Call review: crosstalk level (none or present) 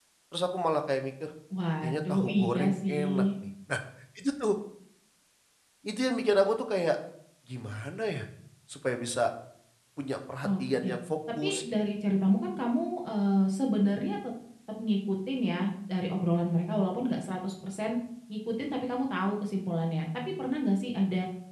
present